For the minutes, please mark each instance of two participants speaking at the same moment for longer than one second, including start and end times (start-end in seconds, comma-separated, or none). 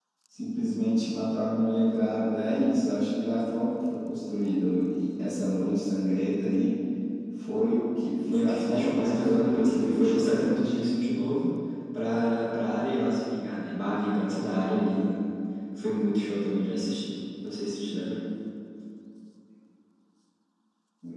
8.3-10.8